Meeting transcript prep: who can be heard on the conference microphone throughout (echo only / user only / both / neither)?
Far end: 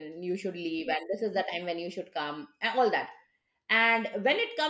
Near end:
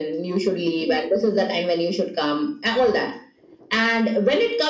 echo only